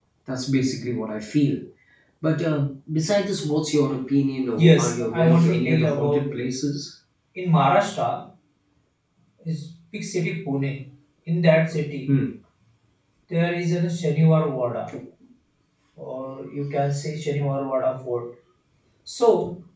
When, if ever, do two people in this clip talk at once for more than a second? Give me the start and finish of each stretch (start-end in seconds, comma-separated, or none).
4.6-6.2